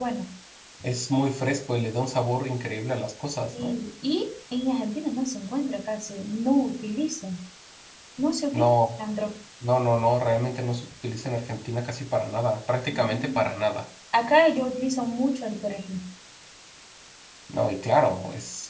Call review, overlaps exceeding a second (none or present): none